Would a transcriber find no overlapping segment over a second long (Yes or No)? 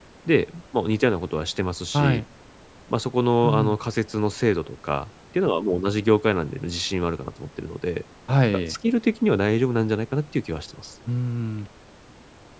Yes